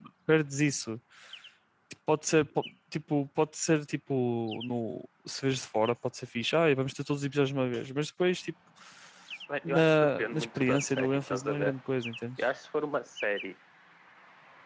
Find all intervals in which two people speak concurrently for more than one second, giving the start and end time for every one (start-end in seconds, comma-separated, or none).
9.7-11.7